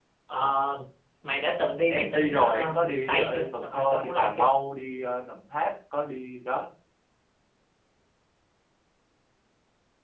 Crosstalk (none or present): present